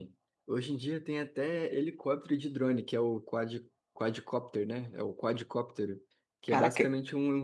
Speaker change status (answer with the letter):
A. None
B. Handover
A